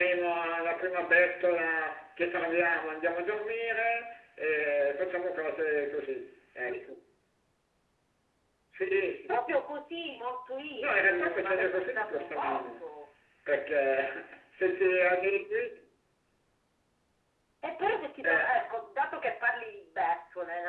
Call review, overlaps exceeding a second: present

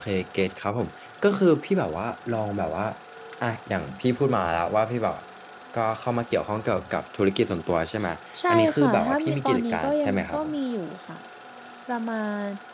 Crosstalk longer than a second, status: present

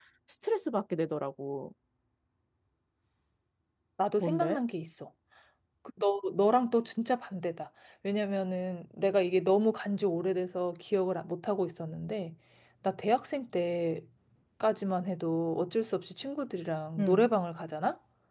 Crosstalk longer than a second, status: none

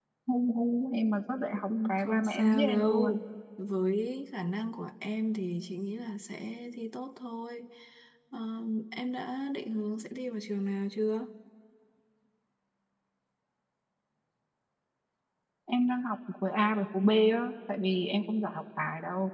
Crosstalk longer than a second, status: present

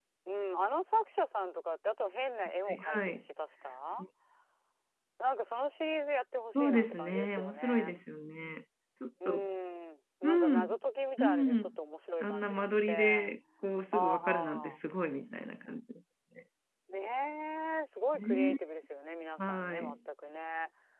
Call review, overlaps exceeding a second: present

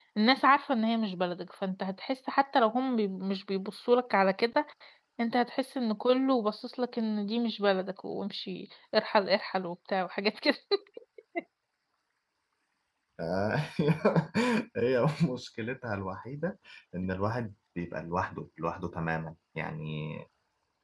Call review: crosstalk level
none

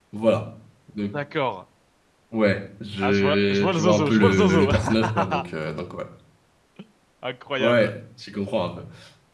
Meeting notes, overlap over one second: present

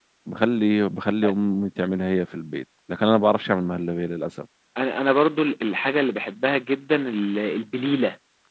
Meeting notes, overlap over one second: none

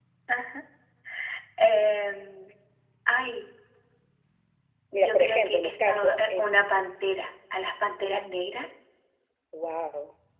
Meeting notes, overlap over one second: present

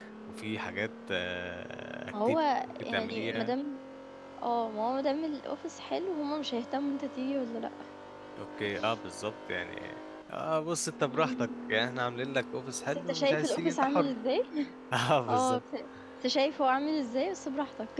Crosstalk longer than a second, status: present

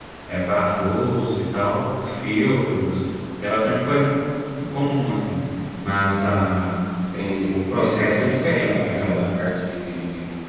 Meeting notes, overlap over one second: present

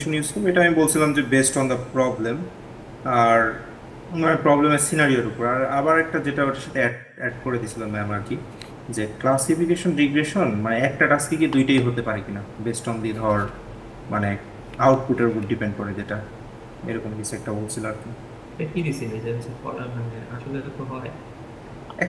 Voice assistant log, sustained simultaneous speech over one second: none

